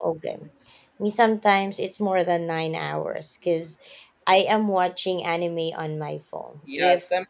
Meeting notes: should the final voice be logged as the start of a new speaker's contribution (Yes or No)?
Yes